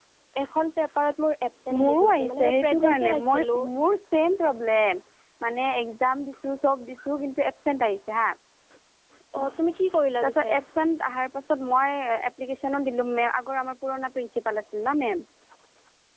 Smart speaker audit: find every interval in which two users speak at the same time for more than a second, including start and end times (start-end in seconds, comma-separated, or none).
1.8-3.6